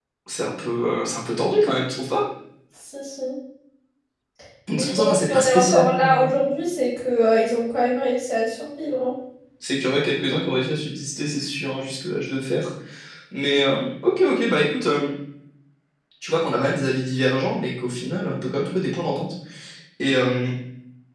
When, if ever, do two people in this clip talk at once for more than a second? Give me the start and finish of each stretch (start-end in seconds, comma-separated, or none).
4.8-6.3